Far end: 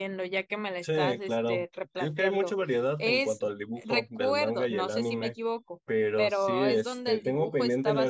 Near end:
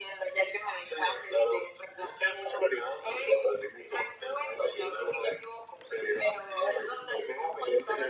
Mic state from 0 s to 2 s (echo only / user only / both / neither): echo only